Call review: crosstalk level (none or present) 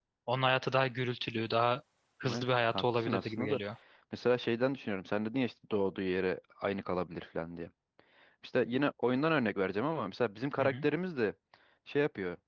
present